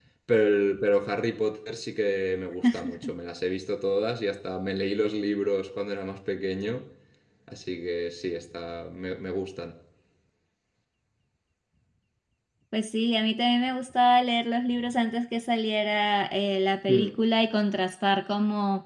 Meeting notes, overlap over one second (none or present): none